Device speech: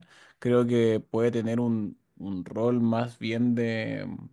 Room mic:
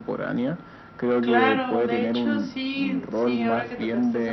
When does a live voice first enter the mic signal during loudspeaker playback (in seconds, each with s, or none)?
1.2 s